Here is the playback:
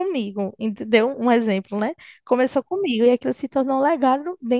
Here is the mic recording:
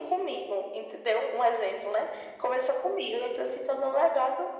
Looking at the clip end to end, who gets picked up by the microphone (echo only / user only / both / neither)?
echo only